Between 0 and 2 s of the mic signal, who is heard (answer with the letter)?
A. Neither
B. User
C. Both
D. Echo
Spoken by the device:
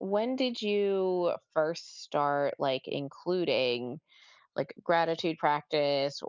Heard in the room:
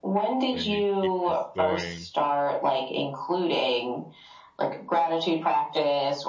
C